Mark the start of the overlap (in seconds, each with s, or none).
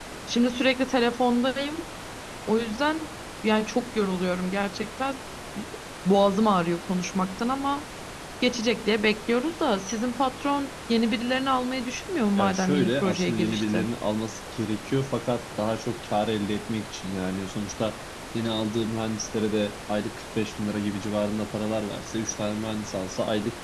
12.4 s